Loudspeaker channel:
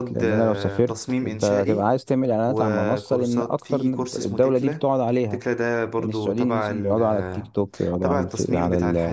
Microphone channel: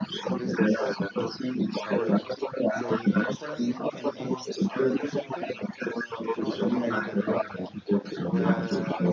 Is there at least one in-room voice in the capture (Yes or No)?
Yes